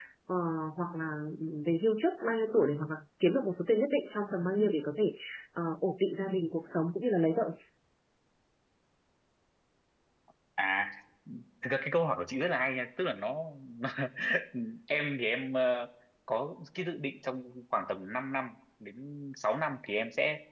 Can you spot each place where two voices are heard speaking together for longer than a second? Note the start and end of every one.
none

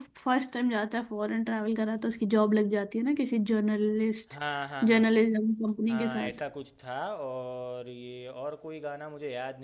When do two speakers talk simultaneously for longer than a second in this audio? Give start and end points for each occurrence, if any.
none

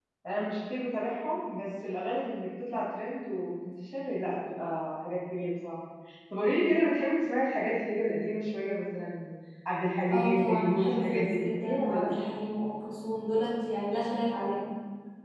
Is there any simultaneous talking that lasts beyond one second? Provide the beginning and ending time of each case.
10.1-12.1

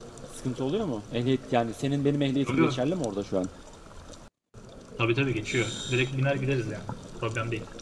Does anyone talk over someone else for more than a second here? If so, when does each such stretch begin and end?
none

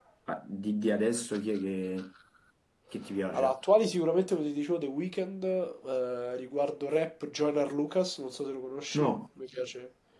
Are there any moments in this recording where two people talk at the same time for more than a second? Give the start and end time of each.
none

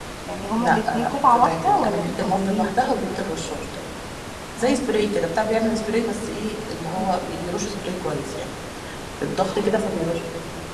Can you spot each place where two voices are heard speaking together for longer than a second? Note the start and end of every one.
0.6-2.7

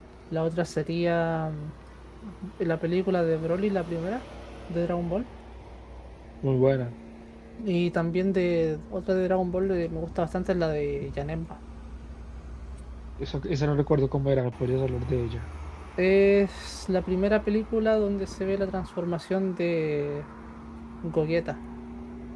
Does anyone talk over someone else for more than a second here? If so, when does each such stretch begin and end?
none

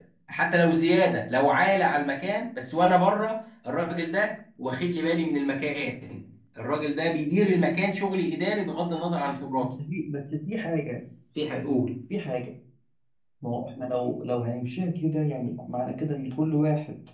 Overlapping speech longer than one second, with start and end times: none

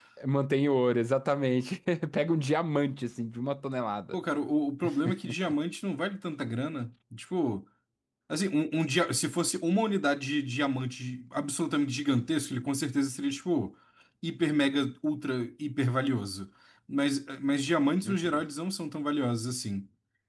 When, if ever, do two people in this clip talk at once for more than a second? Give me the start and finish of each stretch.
none

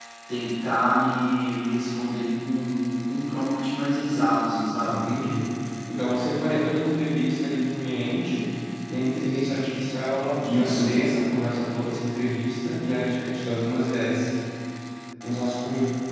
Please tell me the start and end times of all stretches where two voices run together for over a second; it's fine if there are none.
none

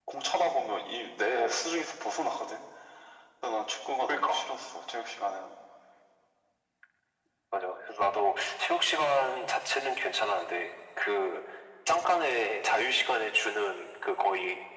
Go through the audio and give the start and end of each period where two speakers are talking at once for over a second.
none

